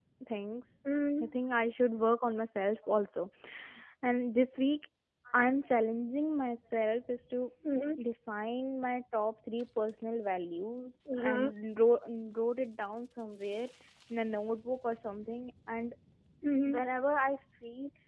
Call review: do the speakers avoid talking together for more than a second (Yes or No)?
Yes